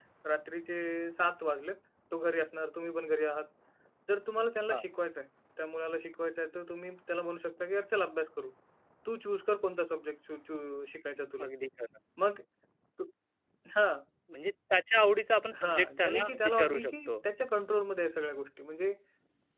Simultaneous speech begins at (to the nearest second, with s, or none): 16 s